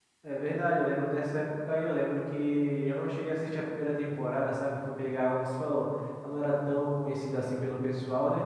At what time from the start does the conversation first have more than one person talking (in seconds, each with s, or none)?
none